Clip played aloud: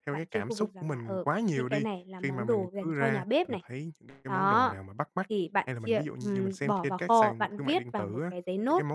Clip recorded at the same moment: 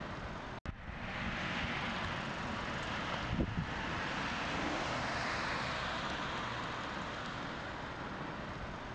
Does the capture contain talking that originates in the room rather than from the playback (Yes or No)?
No